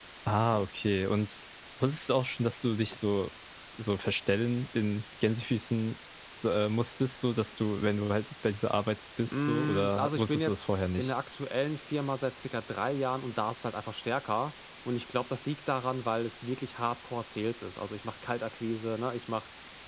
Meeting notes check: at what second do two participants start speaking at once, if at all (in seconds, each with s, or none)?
9.3 s